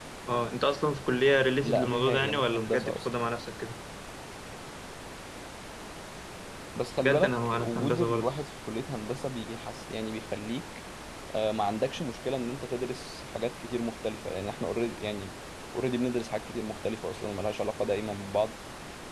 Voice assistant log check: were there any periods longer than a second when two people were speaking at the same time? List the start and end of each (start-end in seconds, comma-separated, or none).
1.6-3.1, 7.0-8.3